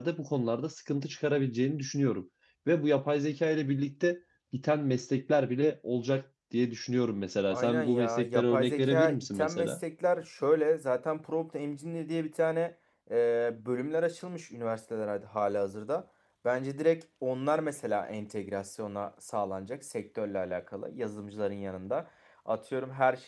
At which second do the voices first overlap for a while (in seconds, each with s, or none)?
7.5 s